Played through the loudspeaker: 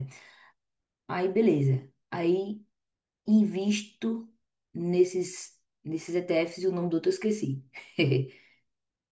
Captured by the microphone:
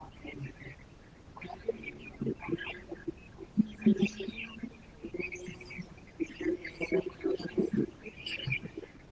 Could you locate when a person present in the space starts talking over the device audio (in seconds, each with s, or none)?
none